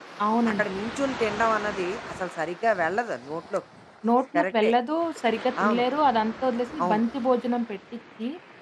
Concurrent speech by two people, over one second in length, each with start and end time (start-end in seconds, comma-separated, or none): none